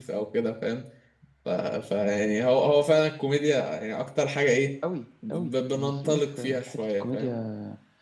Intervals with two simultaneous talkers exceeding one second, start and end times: 5.3-7.4

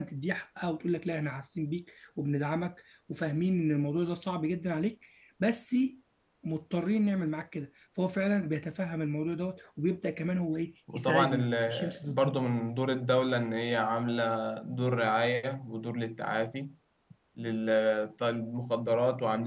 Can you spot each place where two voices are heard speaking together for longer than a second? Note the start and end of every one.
10.9-12.4

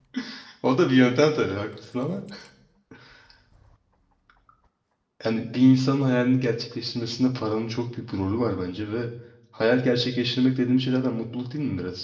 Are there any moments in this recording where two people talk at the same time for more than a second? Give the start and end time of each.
none

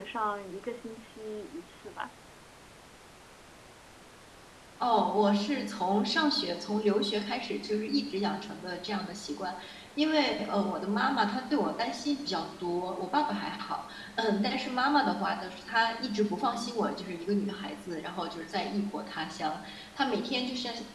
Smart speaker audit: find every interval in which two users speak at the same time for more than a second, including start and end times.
none

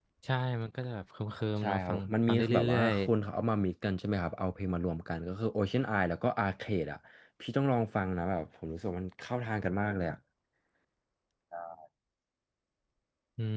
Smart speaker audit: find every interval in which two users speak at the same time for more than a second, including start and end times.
1.6-3.0

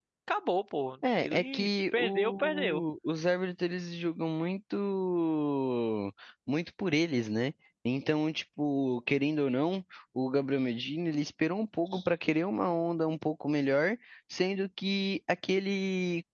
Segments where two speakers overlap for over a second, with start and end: 1.2-2.8

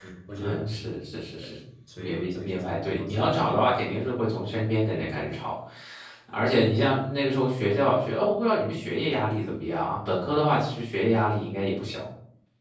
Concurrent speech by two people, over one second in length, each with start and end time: 2.0-3.3

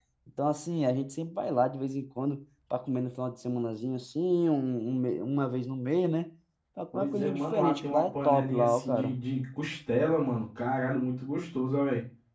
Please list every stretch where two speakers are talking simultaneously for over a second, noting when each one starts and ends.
6.9-9.2

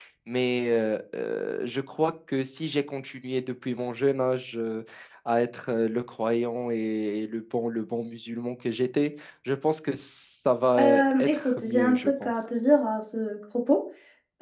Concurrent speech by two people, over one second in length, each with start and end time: 10.8-12.3

